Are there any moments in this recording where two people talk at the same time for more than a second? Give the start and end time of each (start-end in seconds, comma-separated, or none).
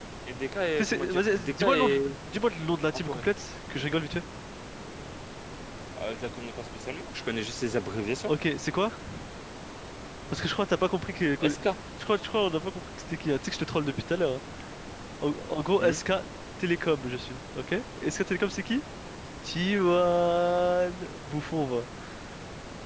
0.8-2.2